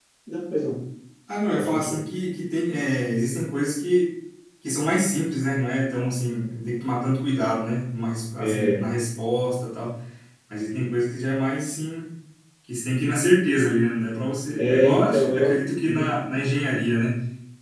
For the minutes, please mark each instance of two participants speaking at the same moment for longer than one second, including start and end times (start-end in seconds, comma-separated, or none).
14.6-16.1